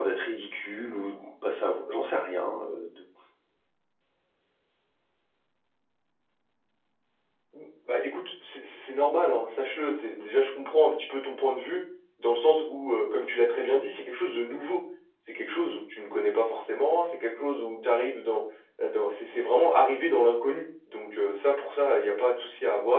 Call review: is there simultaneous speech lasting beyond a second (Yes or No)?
No